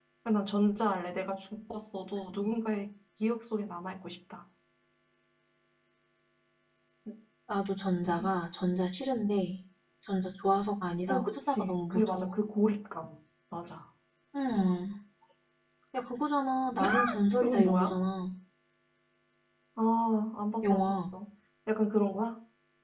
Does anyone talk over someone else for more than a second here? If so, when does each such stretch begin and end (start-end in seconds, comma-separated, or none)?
11.1-12.3